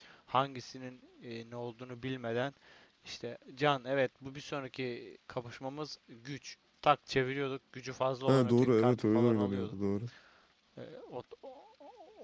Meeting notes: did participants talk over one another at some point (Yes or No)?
Yes